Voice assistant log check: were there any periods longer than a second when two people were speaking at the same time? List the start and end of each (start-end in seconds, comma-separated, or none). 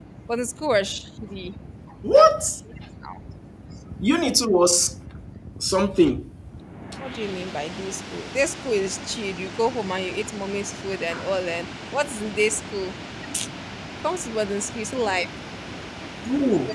none